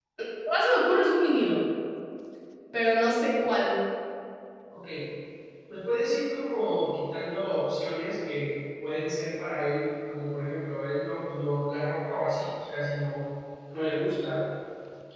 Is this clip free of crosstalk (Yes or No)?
Yes